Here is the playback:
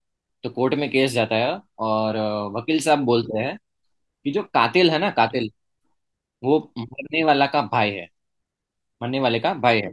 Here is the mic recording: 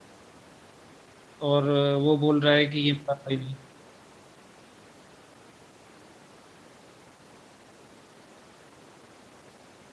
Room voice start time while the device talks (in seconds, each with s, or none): 1.5 s